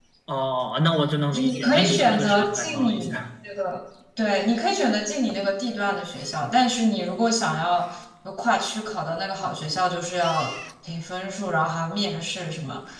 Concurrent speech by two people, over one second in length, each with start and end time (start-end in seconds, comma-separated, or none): 1.3-3.2